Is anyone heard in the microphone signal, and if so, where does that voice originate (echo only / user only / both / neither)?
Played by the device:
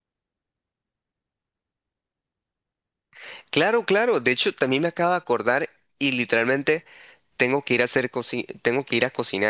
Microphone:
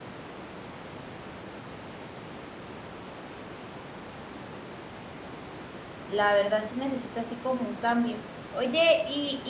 user only